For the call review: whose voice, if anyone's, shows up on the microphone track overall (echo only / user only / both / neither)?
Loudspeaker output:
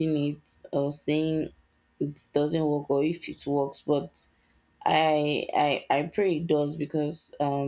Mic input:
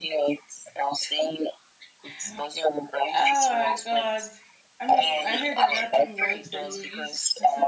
both